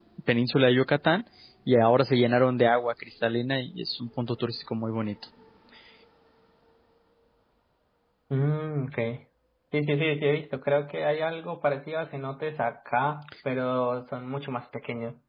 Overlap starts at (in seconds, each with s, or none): none